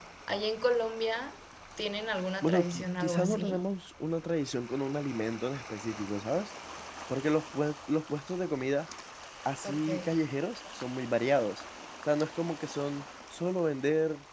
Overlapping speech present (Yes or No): Yes